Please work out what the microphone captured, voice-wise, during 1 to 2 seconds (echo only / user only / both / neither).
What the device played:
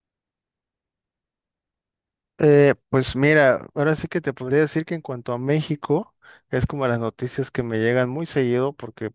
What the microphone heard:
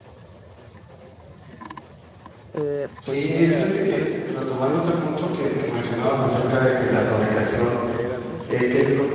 neither